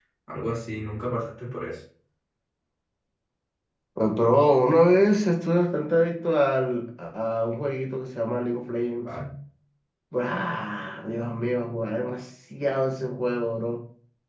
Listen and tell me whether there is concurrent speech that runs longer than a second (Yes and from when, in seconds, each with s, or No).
No